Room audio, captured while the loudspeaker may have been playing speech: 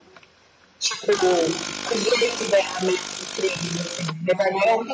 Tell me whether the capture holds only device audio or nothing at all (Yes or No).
Yes